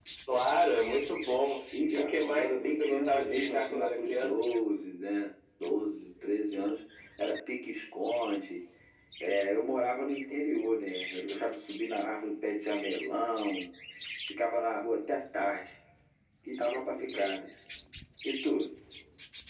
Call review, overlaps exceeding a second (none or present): present